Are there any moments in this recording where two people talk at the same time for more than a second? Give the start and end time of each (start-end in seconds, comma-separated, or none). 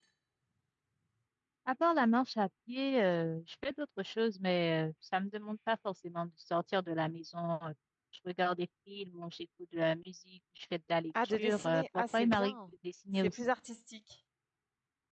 11.2-12.5